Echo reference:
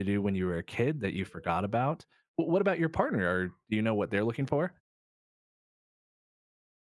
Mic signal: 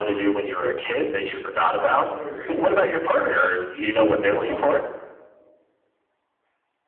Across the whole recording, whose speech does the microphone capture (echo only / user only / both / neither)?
both